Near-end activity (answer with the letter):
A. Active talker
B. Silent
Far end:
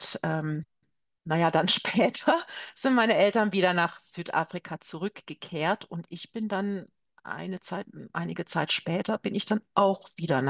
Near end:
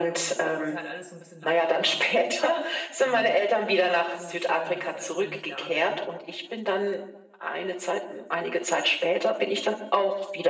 A